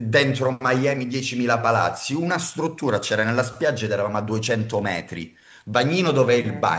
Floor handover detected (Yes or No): No